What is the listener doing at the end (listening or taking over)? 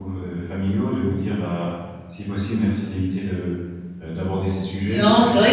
taking over